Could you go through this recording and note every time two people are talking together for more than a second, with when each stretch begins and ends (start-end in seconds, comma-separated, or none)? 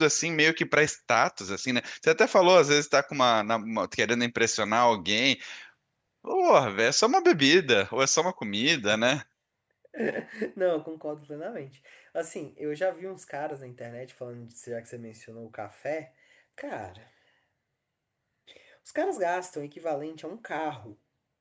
none